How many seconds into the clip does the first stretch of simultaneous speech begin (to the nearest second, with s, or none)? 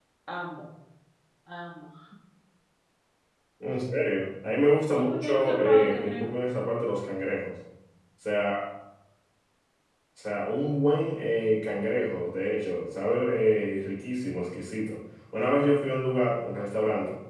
5 s